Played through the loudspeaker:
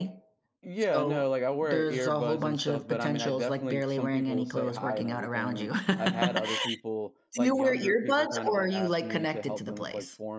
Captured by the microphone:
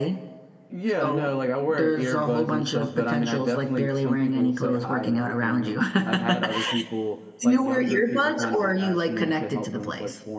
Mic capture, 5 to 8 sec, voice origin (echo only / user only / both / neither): echo only